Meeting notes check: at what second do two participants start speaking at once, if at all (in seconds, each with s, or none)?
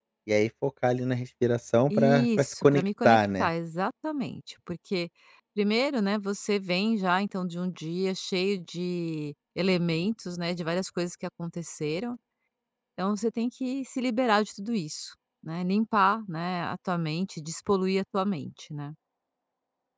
1.9 s